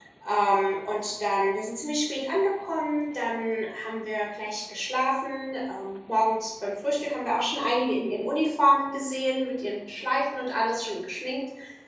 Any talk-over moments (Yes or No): No